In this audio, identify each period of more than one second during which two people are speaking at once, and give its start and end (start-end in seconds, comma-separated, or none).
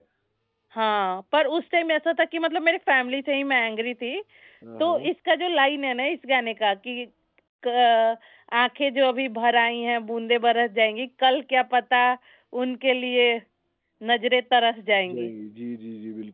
none